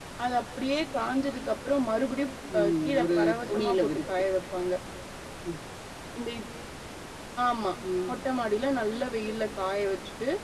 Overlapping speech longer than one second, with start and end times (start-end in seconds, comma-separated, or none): 2.6-4.0